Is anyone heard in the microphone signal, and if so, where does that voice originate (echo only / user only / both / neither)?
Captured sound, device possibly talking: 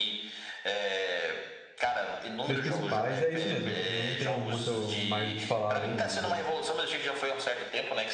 both